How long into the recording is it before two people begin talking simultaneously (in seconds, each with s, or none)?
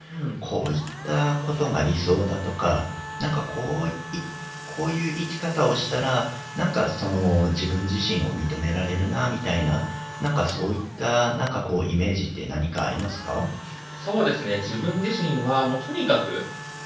none